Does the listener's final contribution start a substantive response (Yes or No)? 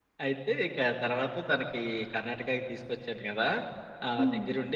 No